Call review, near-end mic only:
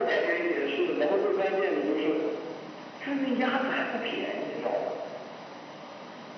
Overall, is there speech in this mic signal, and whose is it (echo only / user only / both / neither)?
echo only